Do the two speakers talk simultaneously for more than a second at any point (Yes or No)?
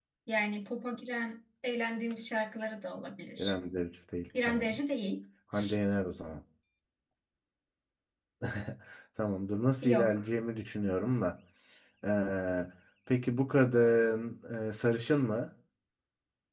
No